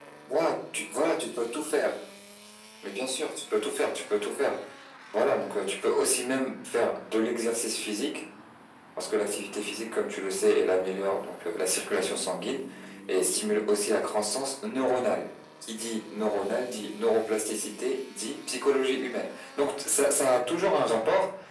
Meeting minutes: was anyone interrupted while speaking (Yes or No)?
No